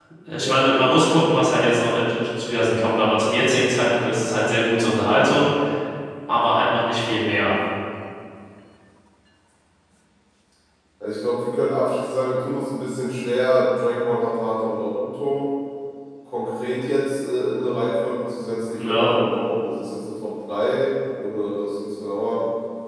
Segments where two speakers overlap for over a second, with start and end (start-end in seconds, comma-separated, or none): none